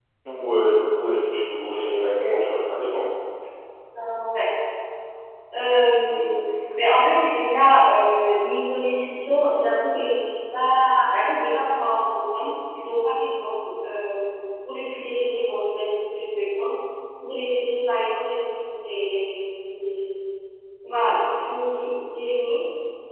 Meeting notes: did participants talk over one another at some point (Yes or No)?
No